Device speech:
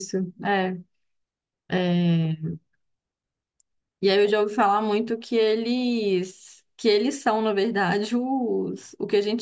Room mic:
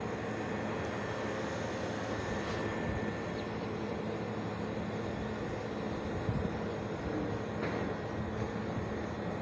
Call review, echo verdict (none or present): none